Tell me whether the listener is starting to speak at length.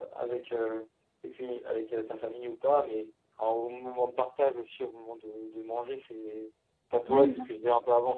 No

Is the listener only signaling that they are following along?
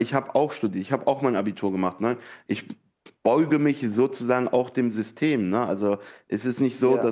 Yes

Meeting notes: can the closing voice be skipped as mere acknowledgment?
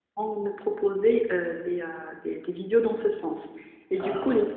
Yes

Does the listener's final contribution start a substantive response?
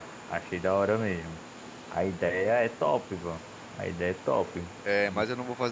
Yes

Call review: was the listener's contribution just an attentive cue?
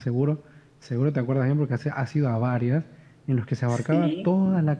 Yes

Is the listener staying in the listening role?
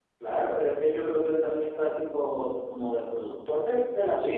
No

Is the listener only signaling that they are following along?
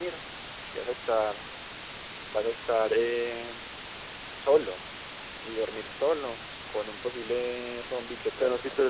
No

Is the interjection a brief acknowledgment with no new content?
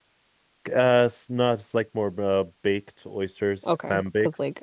No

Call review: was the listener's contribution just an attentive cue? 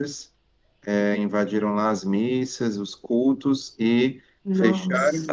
Yes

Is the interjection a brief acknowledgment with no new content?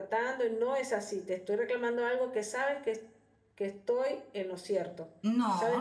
No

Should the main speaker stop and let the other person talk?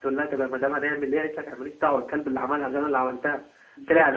No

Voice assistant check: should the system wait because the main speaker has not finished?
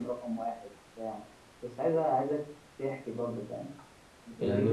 No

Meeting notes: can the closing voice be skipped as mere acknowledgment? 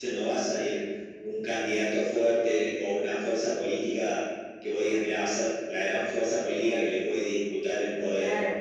No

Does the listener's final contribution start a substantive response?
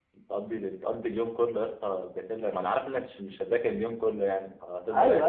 Yes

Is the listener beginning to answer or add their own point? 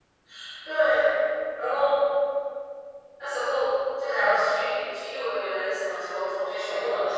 No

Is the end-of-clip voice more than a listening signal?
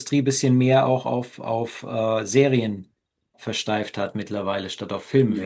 Yes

